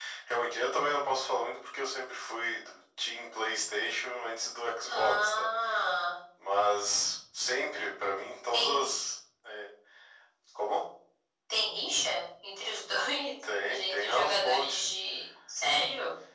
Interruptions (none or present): present